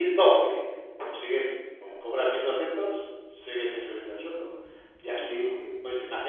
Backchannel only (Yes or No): Yes